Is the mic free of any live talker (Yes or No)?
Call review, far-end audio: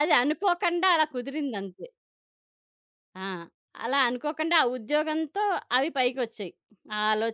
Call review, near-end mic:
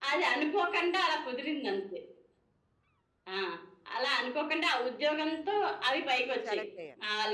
No